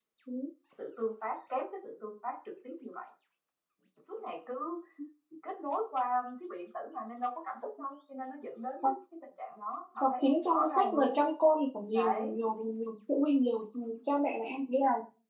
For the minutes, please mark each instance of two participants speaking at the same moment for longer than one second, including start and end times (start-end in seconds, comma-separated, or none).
10.0-11.2